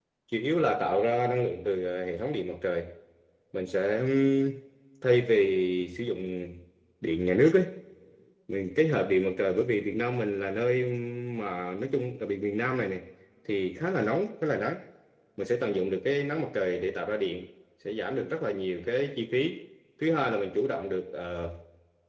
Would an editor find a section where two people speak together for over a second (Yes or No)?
No